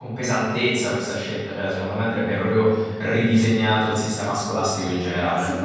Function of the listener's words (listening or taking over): taking over